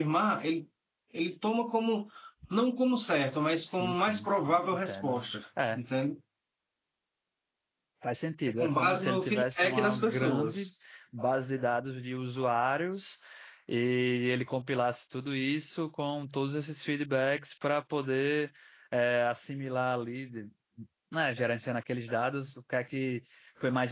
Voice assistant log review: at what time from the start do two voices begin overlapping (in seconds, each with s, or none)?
3.6 s